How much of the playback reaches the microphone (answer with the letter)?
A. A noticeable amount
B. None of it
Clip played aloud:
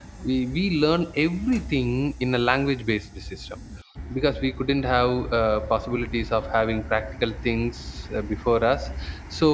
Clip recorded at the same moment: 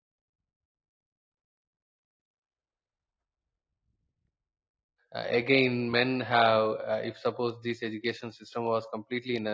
B